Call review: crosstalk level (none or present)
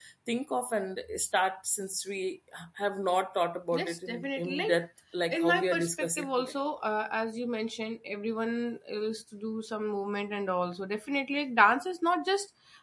present